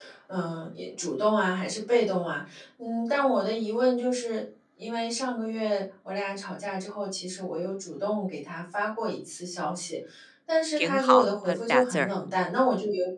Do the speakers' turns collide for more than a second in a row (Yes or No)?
Yes